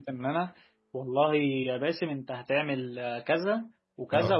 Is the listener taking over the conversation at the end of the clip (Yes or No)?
No